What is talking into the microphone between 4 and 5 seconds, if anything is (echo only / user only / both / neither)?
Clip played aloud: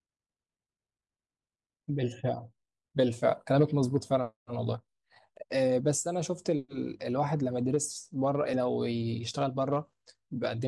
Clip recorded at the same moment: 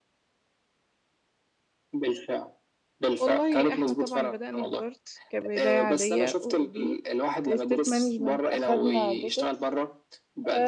both